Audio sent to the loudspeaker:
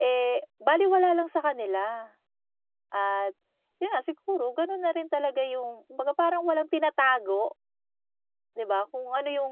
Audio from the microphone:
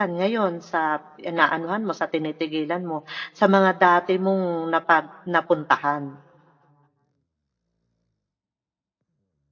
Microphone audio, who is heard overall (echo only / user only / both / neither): user only